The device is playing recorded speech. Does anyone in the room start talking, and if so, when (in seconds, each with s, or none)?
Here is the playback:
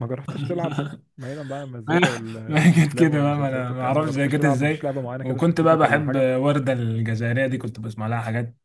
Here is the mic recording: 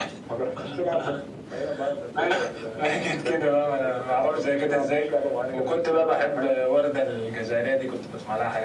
none